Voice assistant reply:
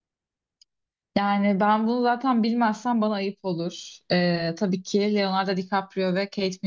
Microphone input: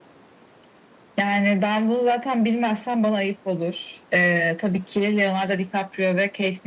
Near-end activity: none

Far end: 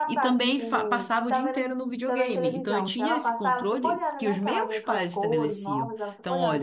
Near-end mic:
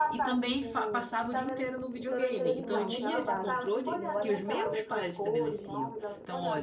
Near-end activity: present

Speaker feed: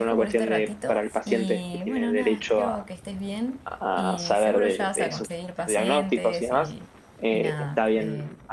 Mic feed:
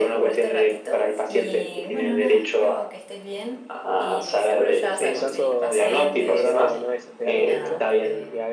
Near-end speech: present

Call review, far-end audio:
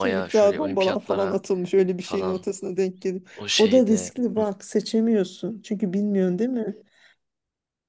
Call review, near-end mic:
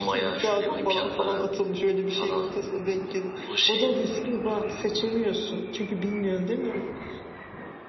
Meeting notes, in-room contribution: none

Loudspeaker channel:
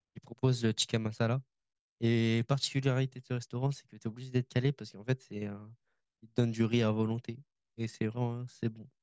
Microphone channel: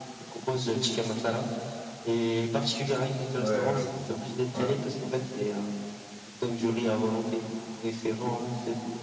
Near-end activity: present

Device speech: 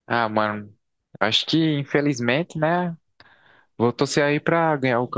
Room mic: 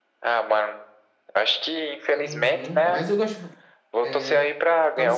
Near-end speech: present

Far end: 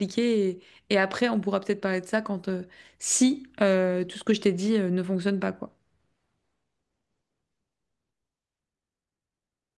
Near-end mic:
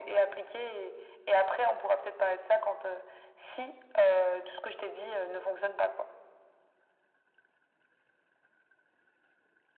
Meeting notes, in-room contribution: none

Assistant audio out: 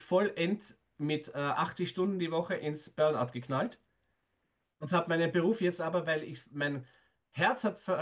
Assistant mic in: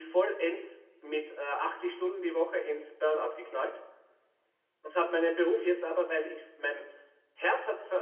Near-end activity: none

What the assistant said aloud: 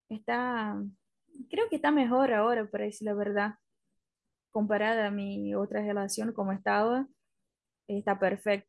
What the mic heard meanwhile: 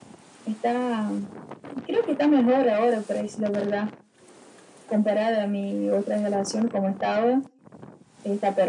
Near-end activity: none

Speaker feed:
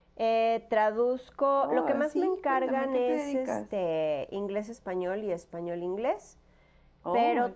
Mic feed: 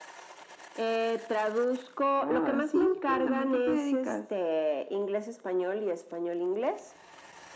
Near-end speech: none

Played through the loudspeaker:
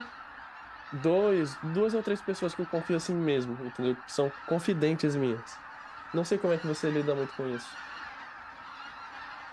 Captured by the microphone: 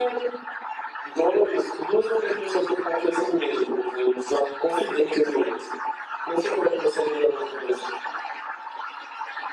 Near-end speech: none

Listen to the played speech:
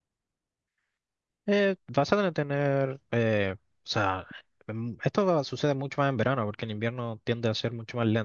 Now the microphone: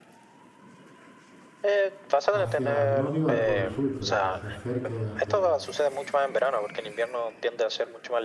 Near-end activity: present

